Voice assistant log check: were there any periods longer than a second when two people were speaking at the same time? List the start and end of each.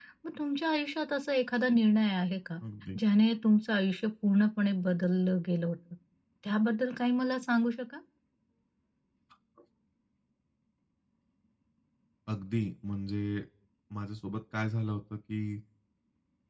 none

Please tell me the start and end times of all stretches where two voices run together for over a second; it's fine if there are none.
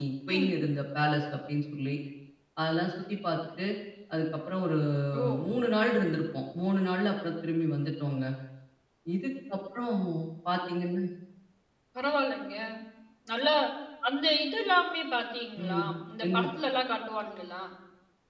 none

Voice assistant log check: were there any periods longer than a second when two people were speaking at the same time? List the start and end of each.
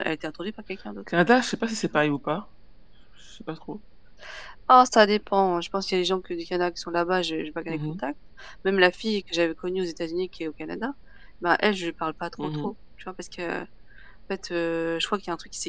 none

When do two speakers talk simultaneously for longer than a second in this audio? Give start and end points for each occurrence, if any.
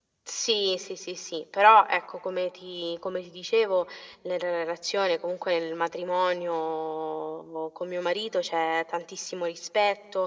none

